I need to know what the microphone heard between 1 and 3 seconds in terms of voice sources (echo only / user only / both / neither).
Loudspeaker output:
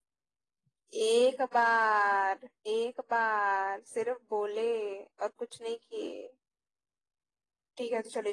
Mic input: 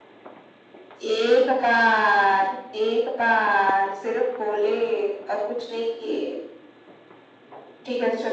echo only